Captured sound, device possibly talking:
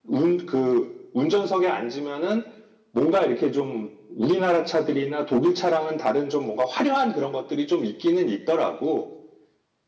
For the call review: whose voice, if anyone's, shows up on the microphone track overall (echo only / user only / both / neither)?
user only